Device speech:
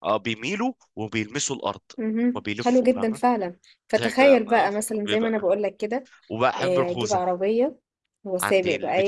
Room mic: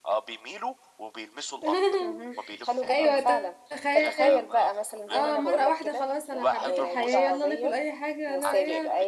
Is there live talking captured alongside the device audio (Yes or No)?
Yes